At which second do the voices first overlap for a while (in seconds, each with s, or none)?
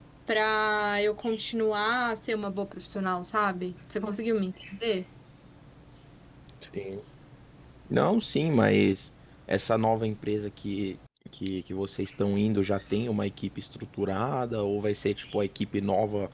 none